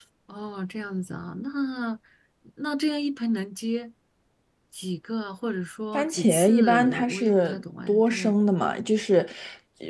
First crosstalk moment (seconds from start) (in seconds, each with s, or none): 5.9 s